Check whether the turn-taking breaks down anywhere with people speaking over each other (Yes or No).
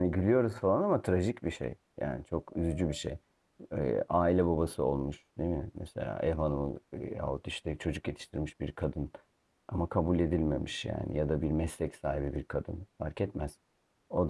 No